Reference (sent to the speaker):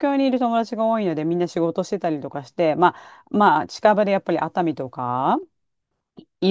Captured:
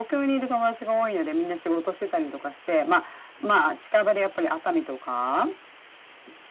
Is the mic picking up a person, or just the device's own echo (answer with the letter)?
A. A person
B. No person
B